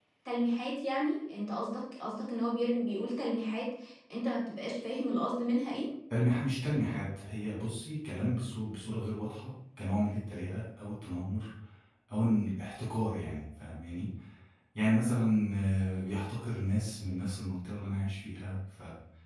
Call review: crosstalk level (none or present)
none